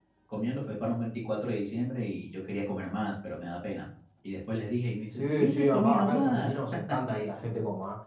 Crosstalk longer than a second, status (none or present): present